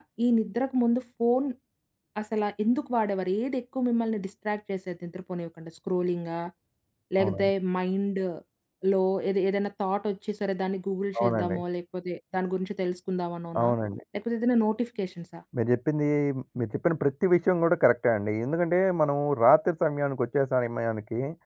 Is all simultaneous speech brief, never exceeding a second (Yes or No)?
Yes